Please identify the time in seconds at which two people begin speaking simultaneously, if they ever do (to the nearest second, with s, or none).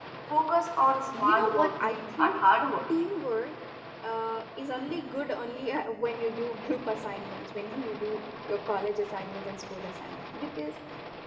1 s